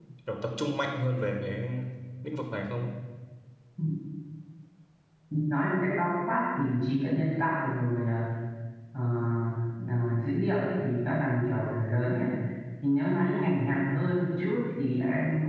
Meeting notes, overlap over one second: none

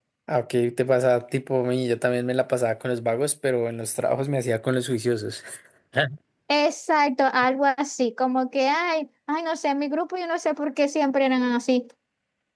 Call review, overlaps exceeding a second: none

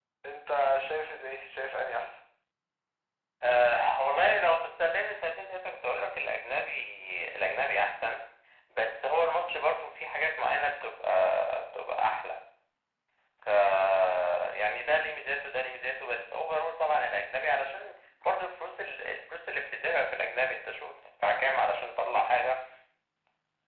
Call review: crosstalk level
none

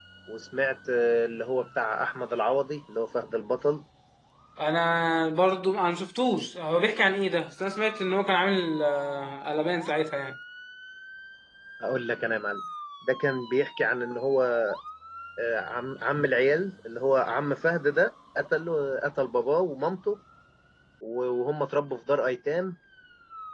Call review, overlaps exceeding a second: none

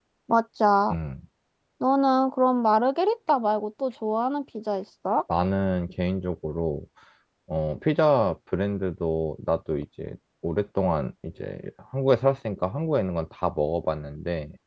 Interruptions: none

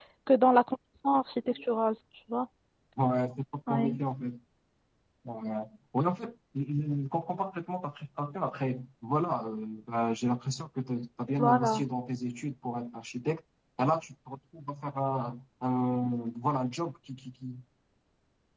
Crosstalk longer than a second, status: none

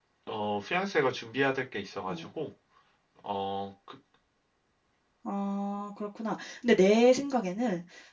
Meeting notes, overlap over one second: none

